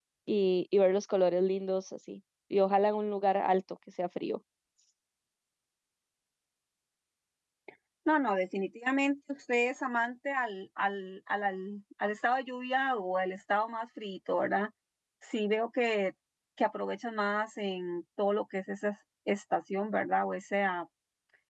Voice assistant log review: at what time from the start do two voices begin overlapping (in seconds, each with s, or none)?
none